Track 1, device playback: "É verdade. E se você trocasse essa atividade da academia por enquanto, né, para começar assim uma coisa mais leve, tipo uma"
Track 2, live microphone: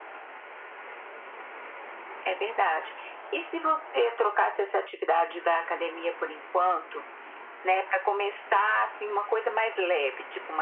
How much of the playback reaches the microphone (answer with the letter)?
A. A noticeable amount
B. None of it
A